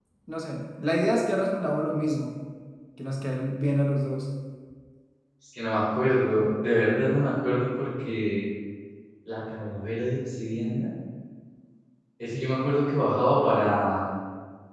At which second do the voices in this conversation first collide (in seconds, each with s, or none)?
none